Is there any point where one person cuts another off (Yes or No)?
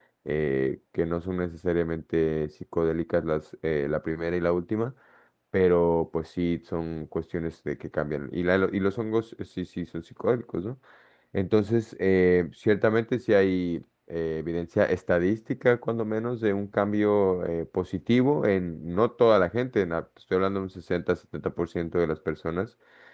No